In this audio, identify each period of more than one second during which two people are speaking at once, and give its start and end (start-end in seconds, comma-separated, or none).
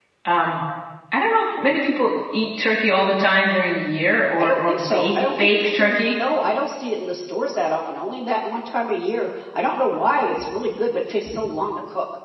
4.4-6.2